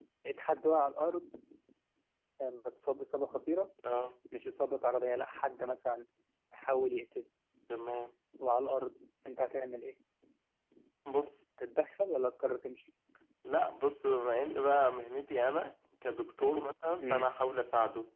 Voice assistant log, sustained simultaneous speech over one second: none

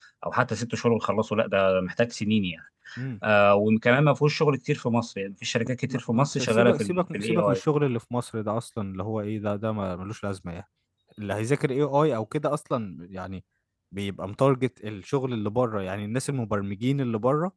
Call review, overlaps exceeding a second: present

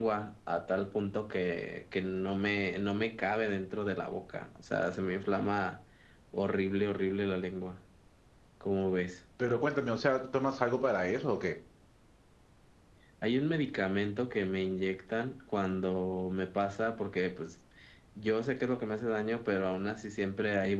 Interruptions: none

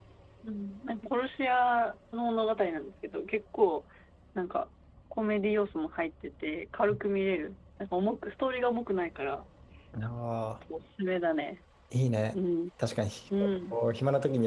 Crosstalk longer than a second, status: none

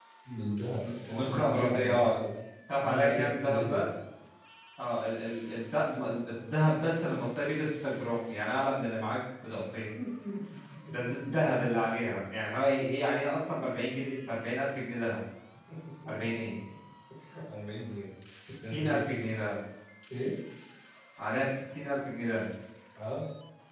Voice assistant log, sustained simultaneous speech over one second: present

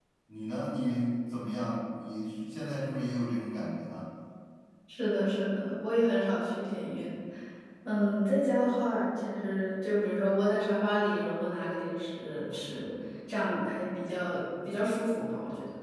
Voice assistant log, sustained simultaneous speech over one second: none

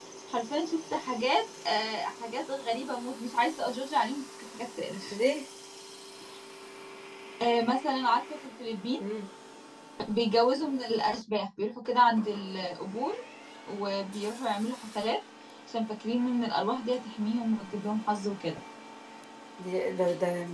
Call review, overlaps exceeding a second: none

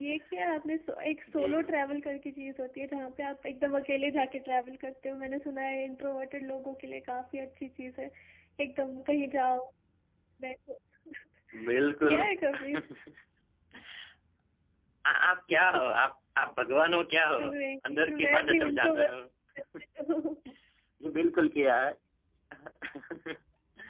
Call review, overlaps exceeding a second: present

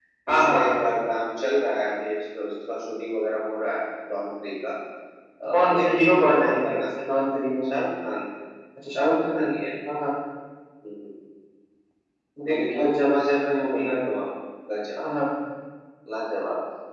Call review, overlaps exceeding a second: present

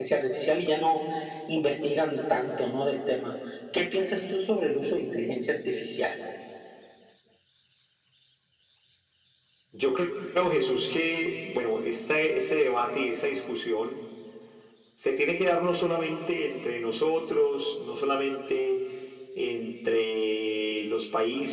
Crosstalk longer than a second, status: none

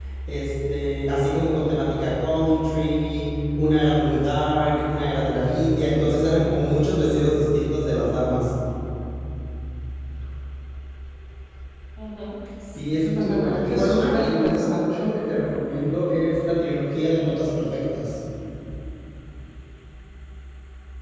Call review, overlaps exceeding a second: present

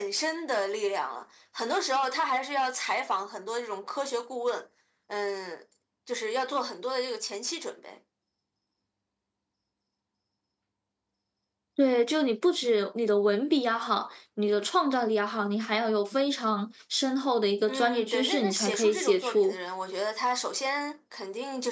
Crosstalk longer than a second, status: present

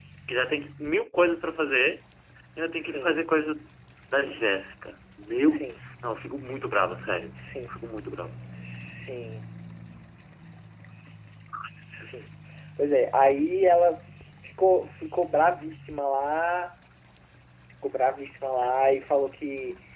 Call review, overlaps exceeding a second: none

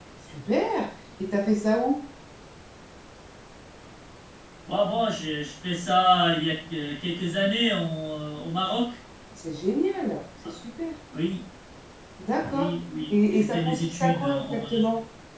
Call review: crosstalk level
present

